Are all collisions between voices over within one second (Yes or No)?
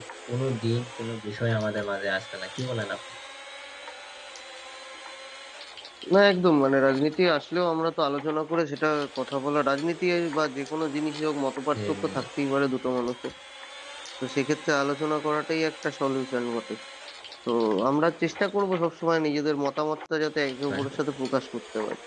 Yes